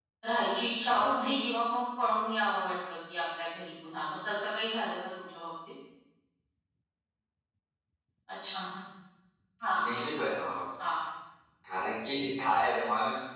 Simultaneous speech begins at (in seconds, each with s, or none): none